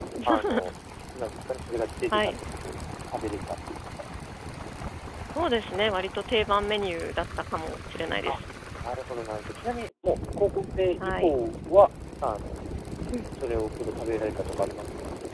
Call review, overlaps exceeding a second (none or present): none